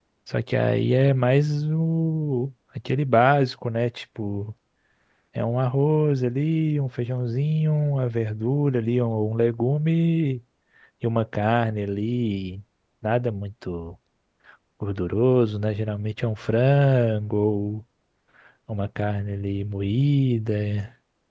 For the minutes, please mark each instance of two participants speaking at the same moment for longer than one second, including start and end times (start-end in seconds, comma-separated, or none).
none